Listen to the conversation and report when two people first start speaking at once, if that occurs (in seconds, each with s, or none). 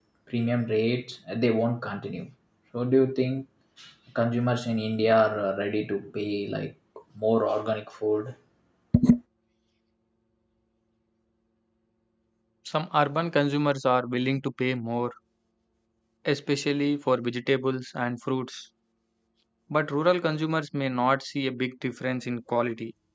none